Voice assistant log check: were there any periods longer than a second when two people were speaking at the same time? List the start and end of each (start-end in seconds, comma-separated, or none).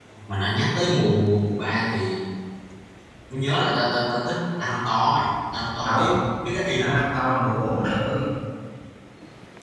none